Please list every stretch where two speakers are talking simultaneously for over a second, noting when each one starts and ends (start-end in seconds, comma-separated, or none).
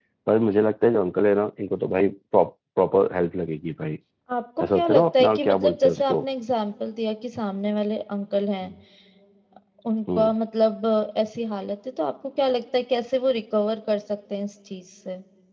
4.6-6.2